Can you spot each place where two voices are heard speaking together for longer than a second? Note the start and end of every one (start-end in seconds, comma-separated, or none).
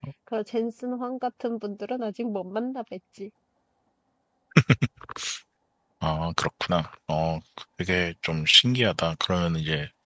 none